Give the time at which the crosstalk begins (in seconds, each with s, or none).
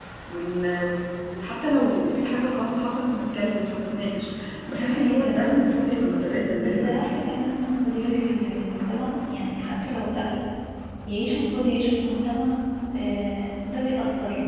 4.7 s